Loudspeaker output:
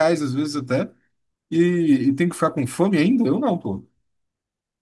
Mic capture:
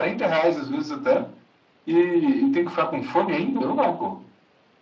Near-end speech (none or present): none